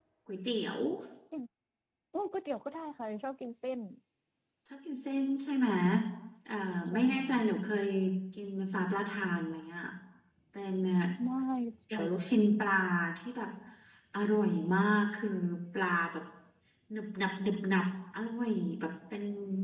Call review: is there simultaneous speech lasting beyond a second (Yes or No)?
No